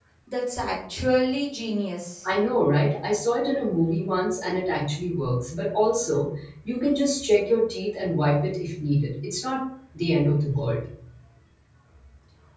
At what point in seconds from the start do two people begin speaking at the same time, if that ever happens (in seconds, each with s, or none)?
none